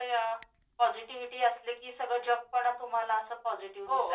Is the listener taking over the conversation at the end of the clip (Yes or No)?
Yes